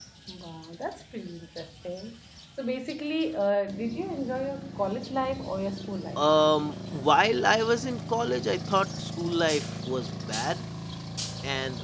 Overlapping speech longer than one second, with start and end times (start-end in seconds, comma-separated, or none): none